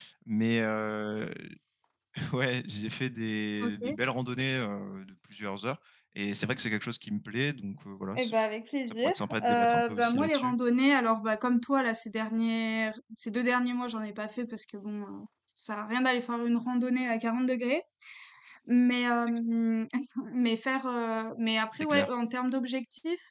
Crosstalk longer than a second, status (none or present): present